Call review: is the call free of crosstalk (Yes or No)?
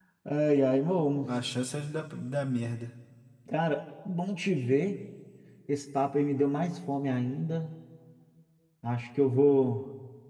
Yes